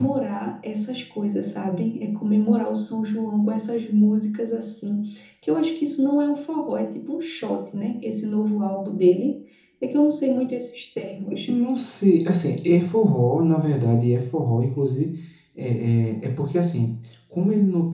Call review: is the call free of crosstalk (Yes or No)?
Yes